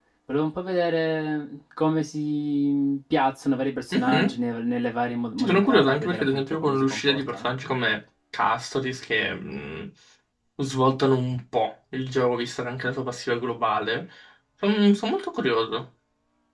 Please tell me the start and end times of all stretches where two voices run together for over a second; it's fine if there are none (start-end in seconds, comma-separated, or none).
5.4-7.5